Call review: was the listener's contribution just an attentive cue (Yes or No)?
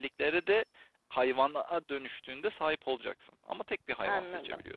No